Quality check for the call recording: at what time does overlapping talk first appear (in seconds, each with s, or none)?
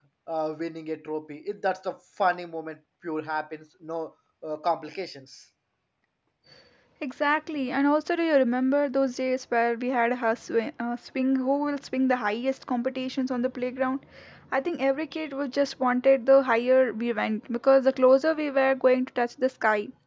none